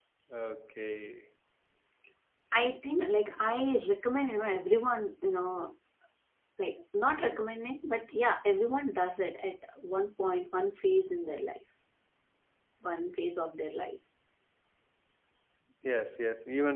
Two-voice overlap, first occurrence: none

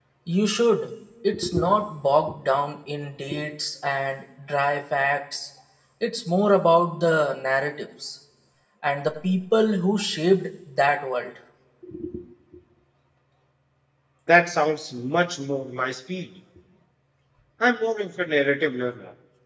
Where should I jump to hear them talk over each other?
none

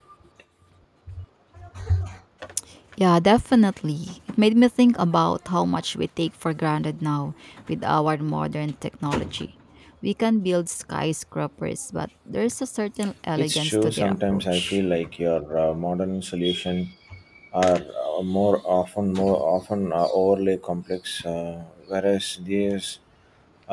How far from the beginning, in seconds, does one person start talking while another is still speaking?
13.4 s

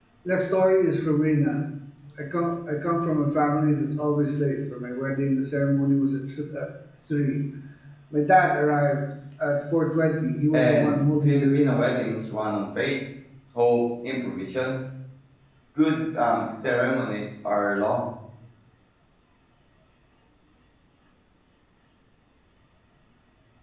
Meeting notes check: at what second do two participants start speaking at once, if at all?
10.5 s

